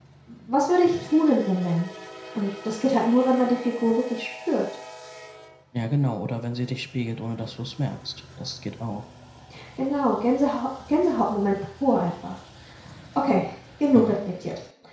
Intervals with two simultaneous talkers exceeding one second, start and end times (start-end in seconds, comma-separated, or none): none